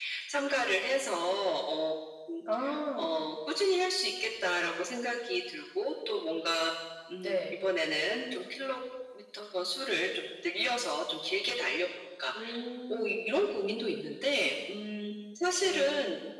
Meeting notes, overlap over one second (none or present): none